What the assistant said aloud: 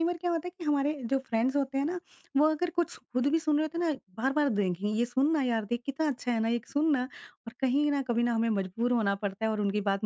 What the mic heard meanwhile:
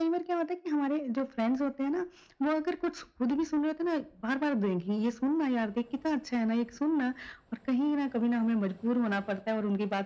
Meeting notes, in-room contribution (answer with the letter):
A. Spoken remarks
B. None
B